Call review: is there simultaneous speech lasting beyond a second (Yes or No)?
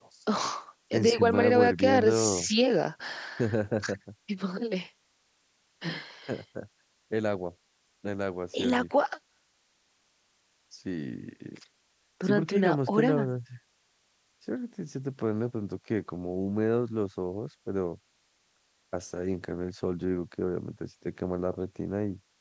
Yes